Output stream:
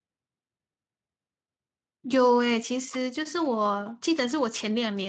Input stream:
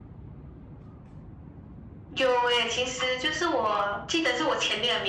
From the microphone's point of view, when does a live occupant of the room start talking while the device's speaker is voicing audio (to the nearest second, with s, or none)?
none